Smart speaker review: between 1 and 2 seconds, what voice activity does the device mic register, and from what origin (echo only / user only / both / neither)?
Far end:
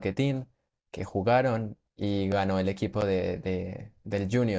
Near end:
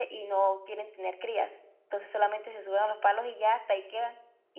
user only